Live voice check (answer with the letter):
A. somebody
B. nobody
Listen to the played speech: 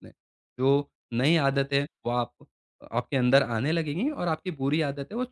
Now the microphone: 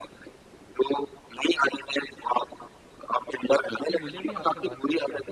A